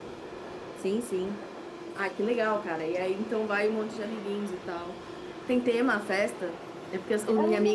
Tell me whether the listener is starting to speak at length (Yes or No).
No